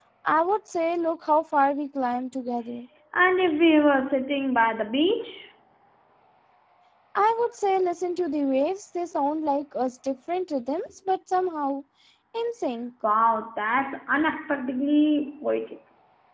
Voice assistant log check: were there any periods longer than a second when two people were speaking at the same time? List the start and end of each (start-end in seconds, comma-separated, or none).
none